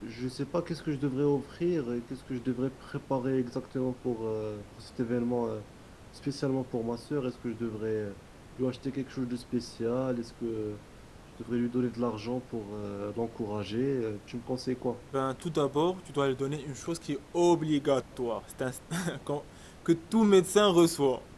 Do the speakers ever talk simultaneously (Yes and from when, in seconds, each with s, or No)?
No